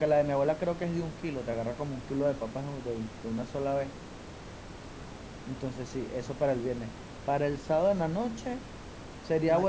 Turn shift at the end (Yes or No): No